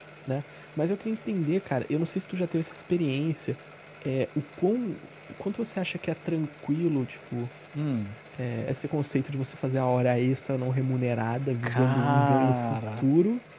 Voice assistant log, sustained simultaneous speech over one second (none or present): present